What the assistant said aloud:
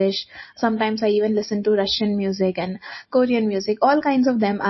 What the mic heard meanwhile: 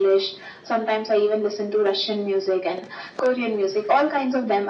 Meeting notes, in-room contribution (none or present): none